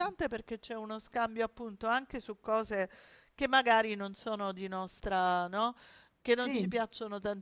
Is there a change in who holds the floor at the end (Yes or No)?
No